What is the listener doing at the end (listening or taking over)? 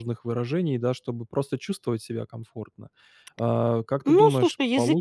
taking over